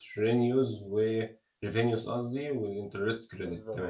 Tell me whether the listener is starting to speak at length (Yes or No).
Yes